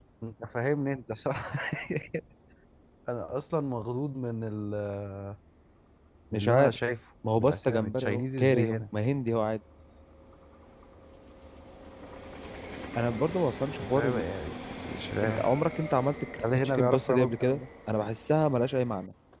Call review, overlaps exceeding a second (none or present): present